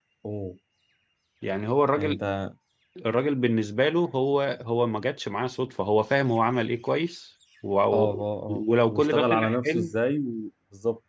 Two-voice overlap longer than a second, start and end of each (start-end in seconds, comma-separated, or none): 8.5-9.9